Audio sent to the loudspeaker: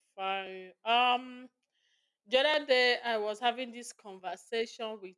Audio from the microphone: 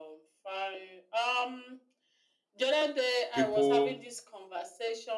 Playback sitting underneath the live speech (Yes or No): Yes